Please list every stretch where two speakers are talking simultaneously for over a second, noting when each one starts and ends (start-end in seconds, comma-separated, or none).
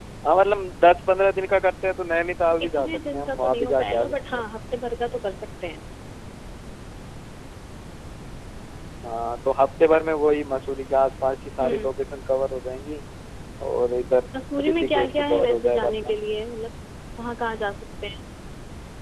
2.6-4.4, 14.7-15.9